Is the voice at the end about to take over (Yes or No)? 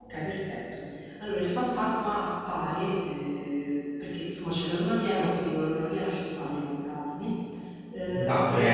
Yes